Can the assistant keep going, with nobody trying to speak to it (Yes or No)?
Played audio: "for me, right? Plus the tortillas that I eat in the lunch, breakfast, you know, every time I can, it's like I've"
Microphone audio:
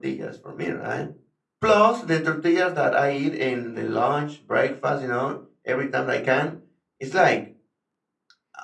Yes